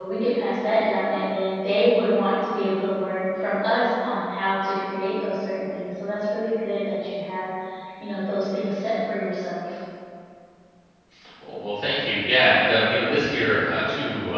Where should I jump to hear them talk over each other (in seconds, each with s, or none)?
none